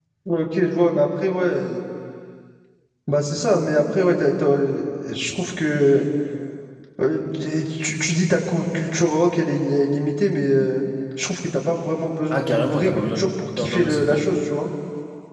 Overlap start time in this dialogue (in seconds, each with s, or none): 12.3 s